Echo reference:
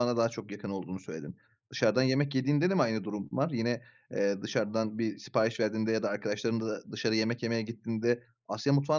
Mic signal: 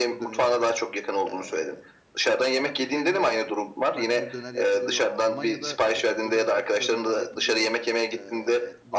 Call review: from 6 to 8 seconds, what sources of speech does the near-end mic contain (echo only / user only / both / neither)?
both